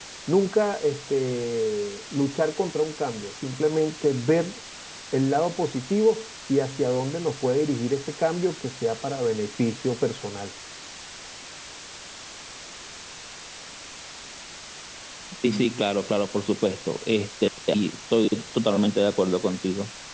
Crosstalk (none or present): none